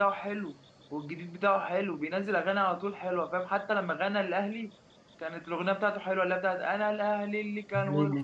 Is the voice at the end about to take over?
No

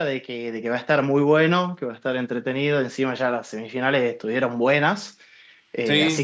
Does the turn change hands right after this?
No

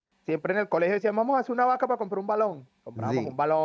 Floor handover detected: No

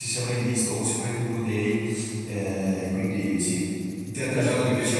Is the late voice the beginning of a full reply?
No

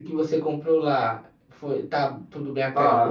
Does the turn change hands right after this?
Yes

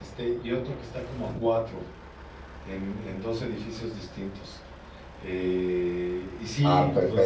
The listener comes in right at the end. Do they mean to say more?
No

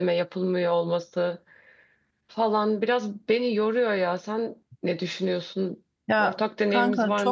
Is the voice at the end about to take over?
Yes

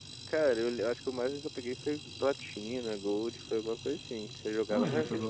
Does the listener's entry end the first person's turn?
Yes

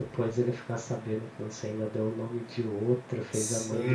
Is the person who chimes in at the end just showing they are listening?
No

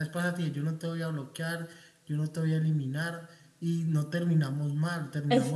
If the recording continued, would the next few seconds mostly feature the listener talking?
Yes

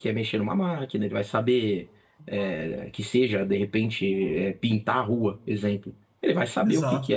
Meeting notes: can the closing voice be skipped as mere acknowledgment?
Yes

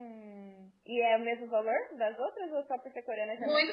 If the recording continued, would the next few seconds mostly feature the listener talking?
Yes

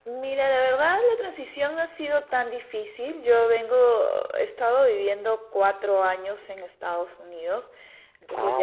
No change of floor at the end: Yes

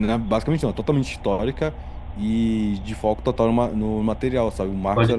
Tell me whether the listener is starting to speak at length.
No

